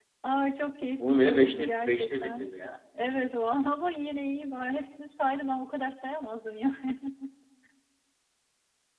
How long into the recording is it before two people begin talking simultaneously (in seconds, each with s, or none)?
1.1 s